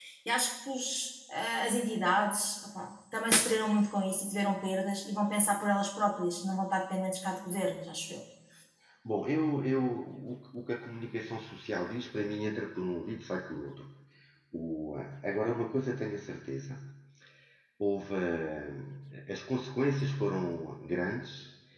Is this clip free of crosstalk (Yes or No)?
Yes